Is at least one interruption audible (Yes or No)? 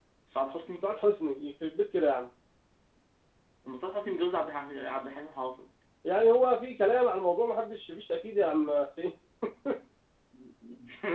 No